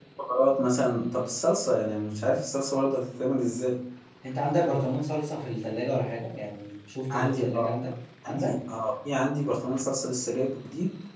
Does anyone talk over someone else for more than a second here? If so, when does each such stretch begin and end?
none

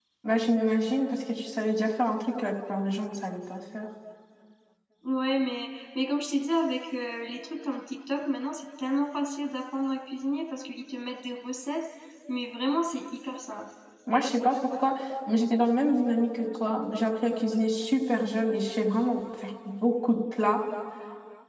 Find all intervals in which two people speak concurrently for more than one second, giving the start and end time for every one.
none

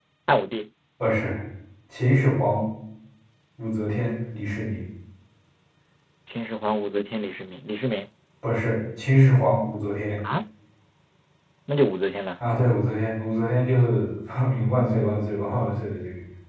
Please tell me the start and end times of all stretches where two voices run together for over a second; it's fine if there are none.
none

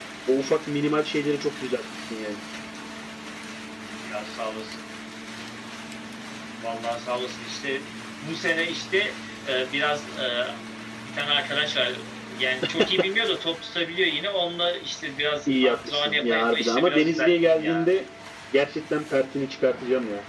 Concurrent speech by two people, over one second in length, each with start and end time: 15.5-17.8

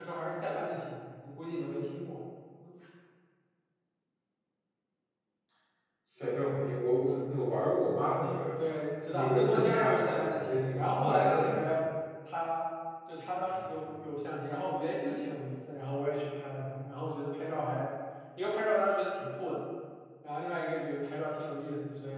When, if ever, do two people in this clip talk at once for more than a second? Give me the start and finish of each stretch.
9.1-11.6

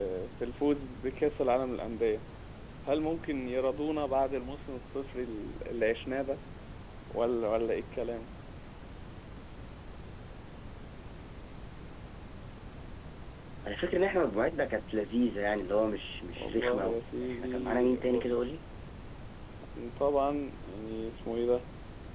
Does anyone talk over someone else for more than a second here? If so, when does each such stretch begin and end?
16.3-18.5

